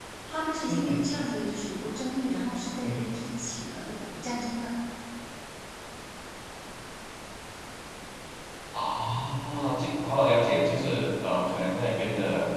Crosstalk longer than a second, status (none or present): none